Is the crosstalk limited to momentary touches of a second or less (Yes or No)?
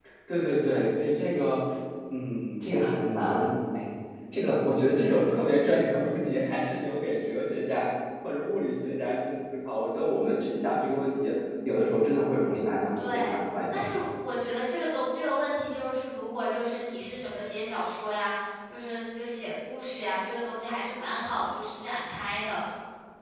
Yes